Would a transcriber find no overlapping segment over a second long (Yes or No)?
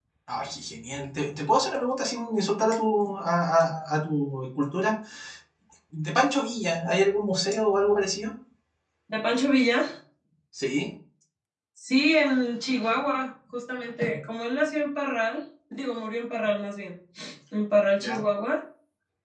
Yes